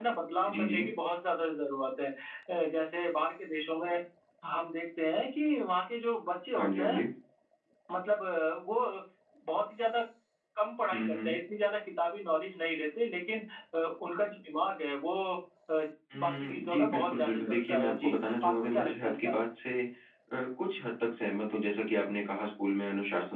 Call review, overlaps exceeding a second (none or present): present